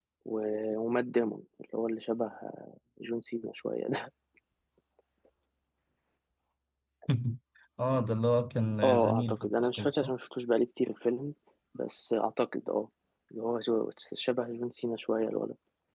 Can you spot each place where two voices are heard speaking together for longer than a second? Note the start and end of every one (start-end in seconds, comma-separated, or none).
8.8-10.1